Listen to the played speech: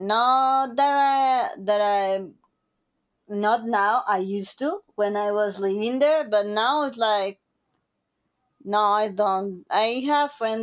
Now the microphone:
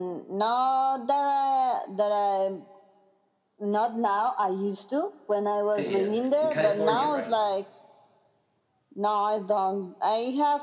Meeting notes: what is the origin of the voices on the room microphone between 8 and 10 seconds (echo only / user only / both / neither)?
echo only